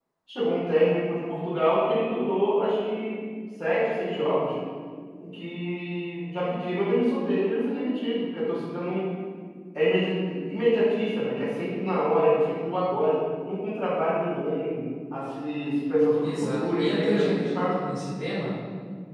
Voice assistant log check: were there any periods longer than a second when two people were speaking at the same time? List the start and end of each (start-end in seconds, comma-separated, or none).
16.2-17.8